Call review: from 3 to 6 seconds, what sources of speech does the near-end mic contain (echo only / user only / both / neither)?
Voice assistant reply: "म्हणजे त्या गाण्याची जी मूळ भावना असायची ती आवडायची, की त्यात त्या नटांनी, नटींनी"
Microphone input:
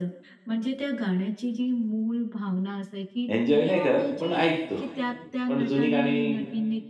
both